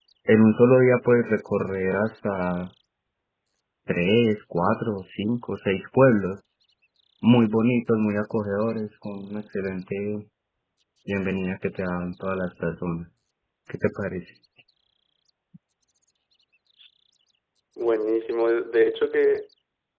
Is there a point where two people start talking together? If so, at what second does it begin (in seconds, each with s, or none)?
none